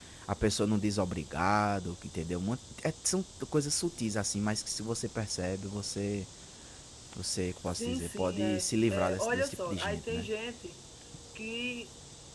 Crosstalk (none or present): present